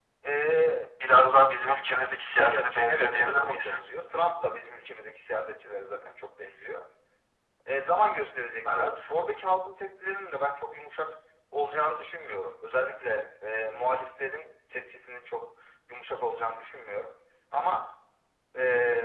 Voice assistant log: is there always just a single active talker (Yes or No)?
No